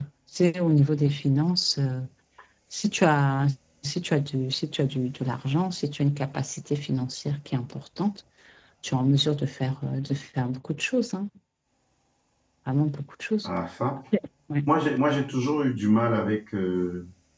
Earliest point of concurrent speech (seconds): none

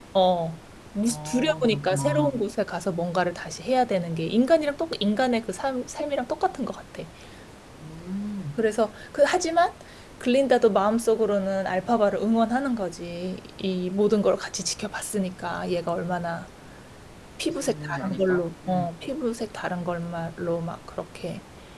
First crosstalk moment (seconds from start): 1 s

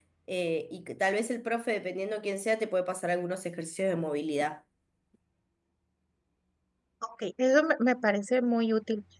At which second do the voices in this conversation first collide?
none

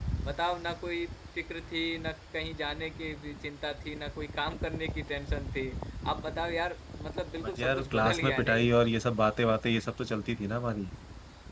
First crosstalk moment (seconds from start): 7 s

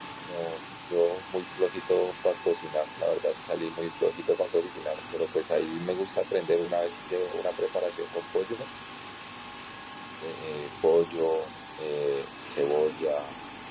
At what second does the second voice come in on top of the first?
none

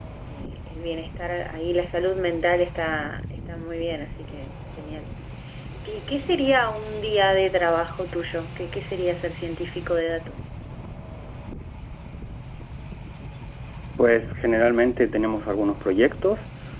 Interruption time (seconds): none

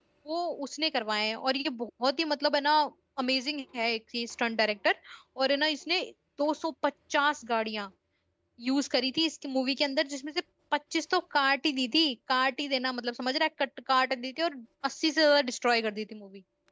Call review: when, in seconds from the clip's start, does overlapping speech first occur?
none

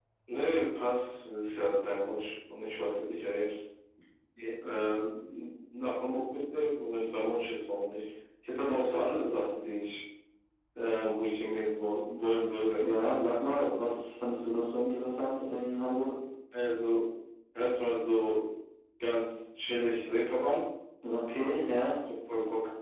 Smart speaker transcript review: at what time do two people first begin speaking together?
none

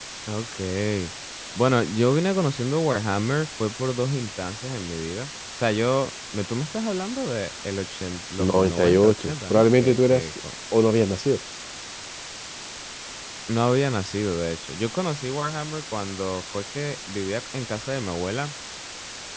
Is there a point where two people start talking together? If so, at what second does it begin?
8 s

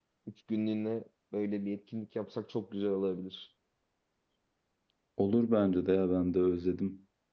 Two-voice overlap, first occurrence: none

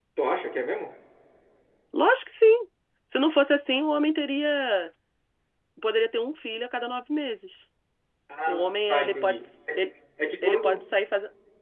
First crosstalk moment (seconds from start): 8 s

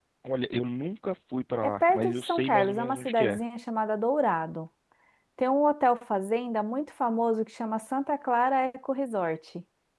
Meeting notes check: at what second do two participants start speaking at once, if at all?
2 s

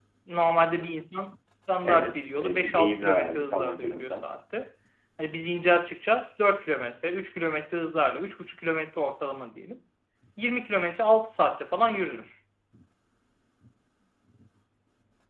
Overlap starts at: 2 s

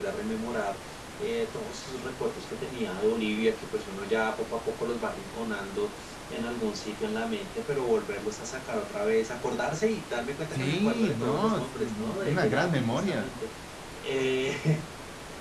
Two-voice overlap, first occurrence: 11 s

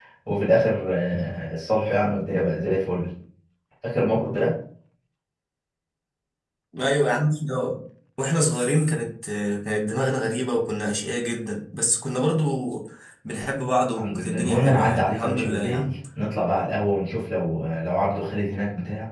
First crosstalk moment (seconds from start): 14 s

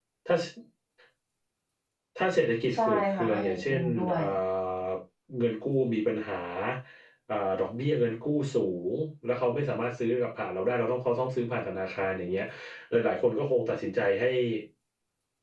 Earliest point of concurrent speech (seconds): 3 s

